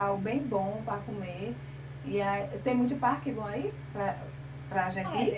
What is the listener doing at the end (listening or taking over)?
taking over